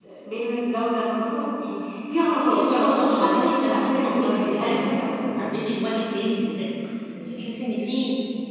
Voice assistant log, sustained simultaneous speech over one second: present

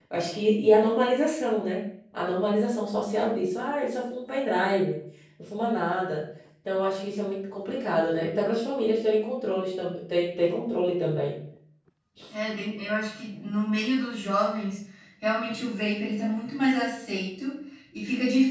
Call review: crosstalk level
none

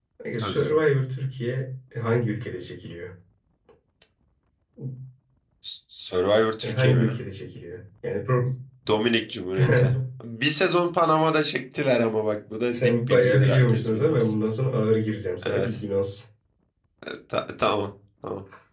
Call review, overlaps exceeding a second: present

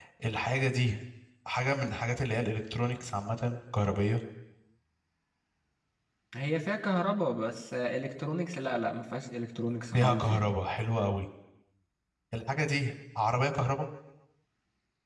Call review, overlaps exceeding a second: none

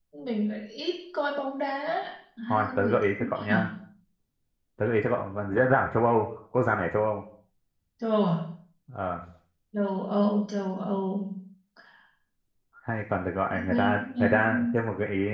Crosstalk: present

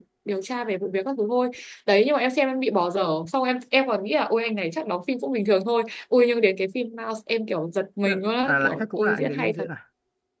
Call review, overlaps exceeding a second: present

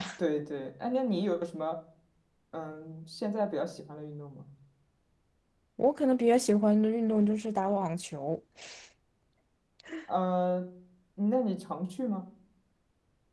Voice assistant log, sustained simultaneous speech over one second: none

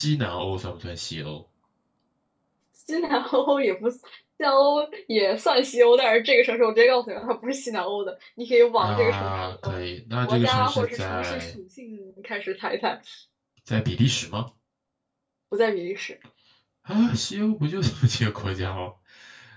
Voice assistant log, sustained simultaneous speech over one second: present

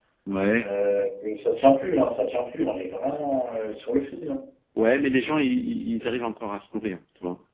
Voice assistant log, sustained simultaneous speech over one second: none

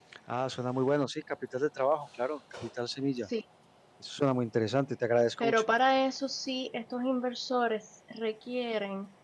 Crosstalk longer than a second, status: none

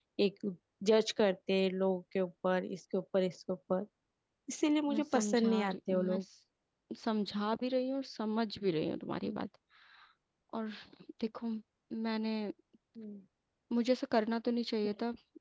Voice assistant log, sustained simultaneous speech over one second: present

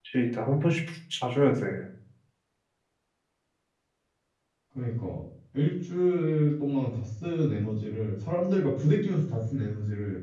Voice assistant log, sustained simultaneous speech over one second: none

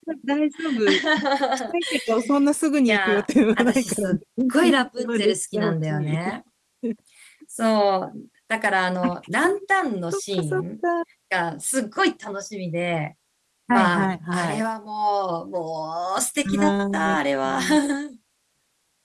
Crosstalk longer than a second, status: present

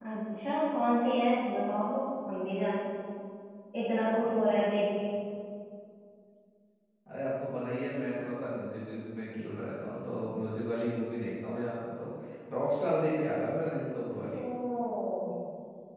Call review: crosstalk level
none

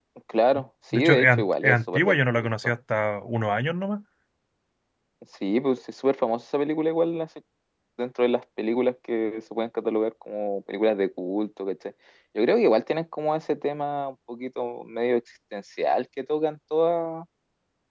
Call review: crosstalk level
present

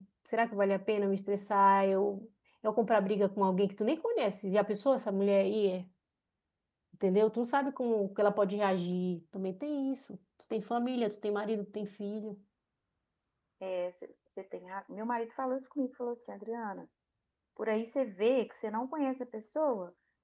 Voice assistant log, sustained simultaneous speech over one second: none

